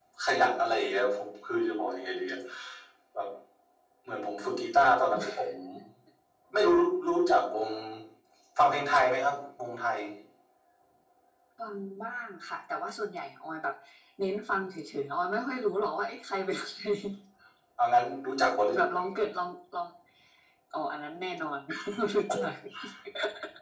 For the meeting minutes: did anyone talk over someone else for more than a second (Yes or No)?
No